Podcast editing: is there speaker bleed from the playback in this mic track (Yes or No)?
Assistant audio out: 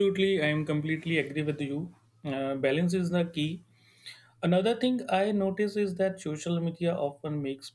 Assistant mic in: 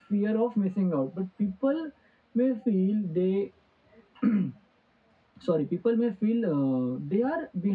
No